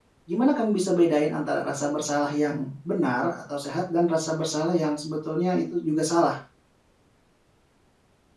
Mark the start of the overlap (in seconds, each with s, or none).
none